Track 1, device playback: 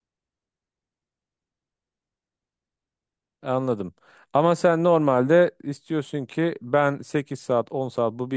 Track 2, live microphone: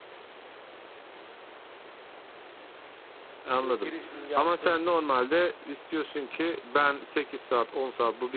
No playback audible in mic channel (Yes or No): No